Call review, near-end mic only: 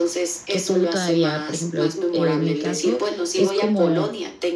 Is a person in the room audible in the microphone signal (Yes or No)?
Yes